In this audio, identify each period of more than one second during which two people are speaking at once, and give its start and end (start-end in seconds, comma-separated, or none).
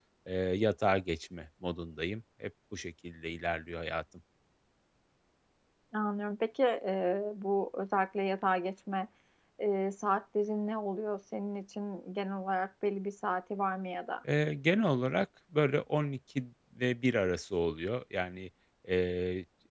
none